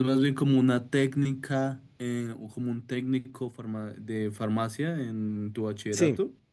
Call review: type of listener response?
taking over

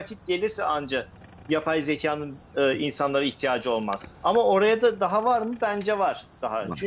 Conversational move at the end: listening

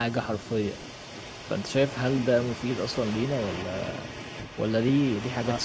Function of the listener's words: taking over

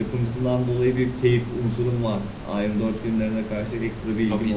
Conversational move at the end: taking over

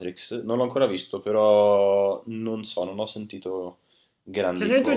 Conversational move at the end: taking over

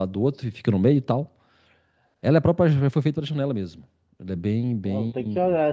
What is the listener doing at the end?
taking over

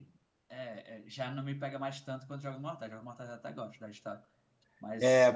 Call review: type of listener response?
taking over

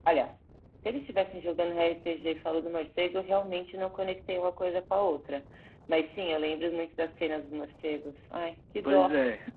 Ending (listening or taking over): taking over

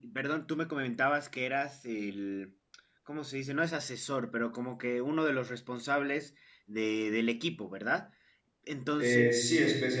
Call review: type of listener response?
taking over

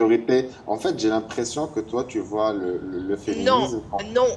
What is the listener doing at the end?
taking over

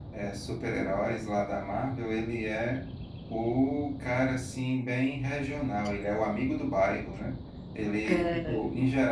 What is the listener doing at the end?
listening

